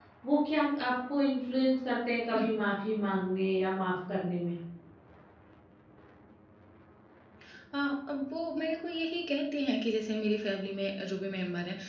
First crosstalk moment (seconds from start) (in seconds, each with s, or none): none